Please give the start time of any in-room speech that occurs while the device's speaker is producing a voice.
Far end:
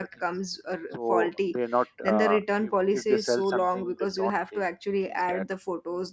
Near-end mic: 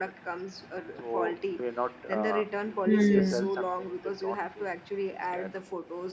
2.8 s

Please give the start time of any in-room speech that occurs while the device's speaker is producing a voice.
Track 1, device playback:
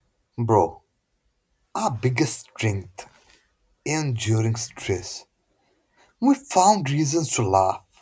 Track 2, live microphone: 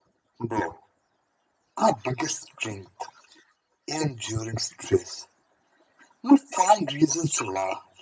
none

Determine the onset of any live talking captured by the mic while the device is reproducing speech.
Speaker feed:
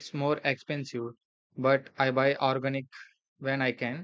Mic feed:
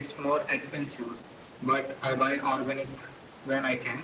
none

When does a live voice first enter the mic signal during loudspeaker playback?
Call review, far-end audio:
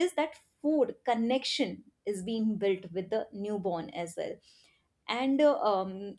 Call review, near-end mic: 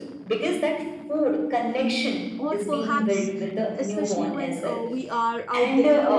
2.4 s

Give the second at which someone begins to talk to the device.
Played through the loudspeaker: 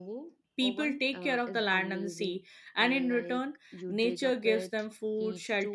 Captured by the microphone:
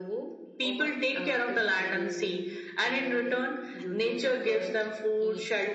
none

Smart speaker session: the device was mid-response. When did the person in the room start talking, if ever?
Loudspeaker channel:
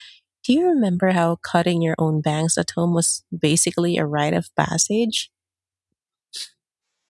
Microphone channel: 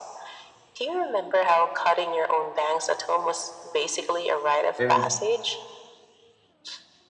4.8 s

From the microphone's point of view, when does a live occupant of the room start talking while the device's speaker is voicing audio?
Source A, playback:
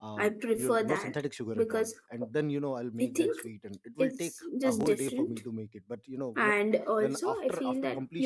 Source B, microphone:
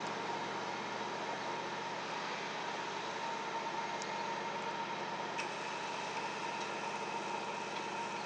none

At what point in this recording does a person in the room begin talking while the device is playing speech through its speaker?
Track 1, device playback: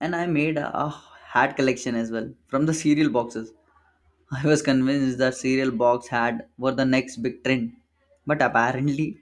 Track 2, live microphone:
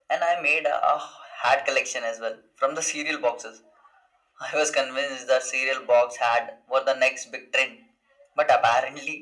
none

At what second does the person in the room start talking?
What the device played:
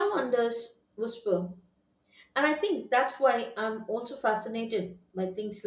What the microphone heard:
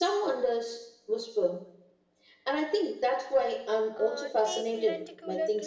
3.9 s

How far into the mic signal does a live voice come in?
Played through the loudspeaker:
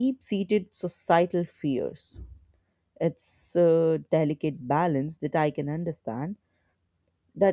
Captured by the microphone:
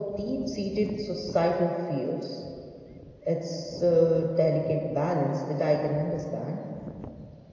none

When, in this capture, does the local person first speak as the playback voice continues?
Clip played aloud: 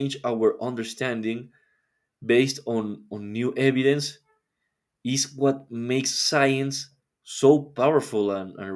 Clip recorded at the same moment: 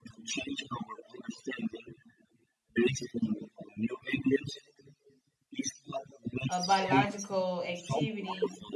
6.5 s

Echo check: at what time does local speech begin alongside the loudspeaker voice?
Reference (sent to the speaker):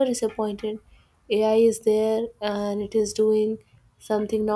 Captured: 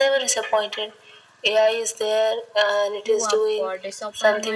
3.0 s

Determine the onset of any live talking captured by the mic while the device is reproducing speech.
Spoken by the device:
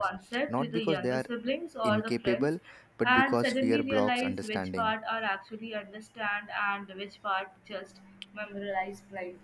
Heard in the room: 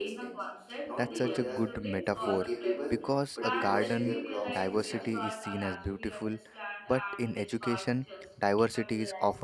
0.9 s

